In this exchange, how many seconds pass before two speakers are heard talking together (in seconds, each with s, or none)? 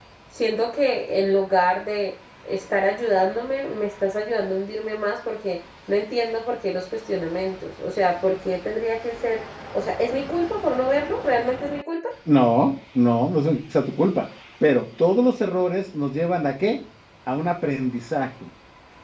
none